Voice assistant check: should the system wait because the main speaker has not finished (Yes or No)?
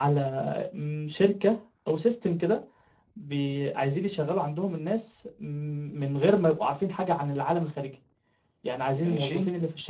Yes